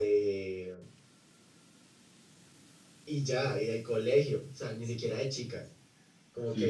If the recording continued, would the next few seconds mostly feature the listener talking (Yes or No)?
No